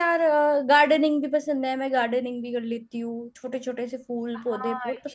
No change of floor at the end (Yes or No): No